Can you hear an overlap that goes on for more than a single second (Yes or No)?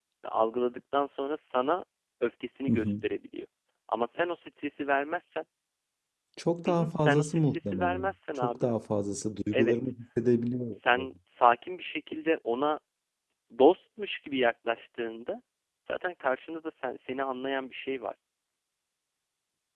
Yes